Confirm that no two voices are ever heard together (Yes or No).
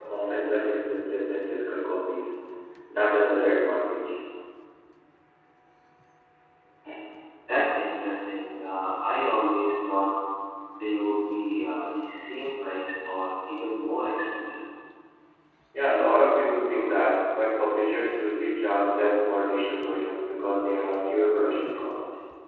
Yes